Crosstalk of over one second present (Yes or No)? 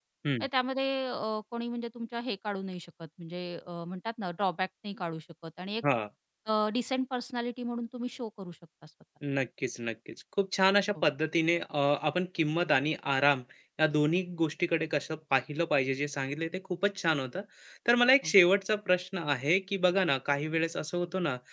No